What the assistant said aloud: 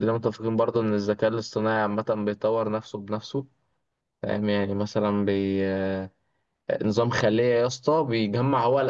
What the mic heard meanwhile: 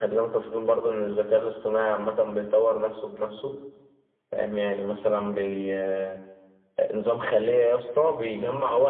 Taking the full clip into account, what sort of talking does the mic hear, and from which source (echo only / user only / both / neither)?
echo only